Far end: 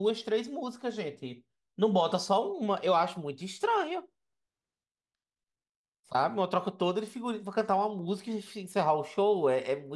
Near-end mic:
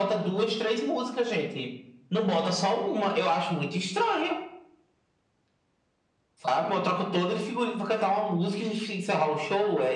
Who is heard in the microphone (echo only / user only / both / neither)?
echo only